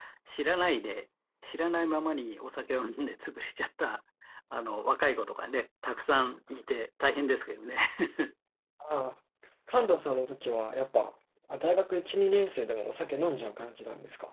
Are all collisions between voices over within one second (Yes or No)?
Yes